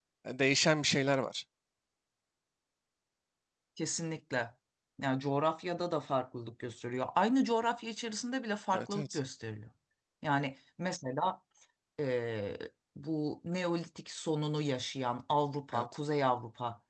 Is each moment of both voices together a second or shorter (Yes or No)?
Yes